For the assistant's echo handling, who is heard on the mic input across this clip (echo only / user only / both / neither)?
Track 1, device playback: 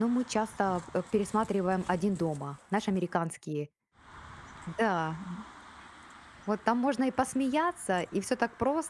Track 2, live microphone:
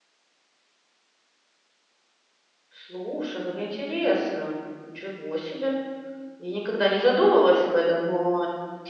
user only